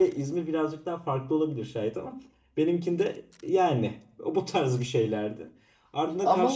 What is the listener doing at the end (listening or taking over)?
listening